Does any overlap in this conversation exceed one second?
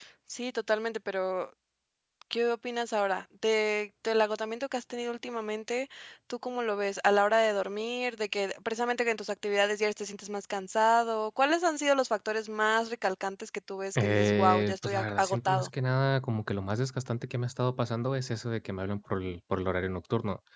Yes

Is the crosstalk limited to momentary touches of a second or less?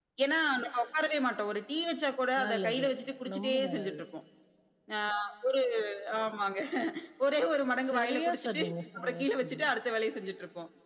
No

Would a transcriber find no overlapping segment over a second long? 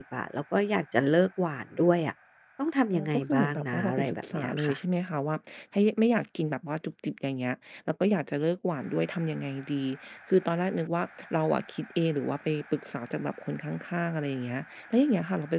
No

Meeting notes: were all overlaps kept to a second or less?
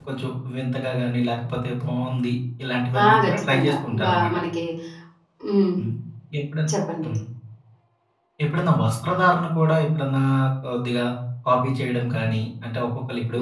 No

